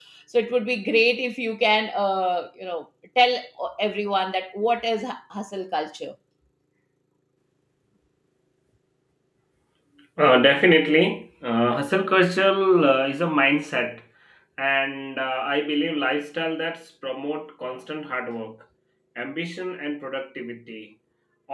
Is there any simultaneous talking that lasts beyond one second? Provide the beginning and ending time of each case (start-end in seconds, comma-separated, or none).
none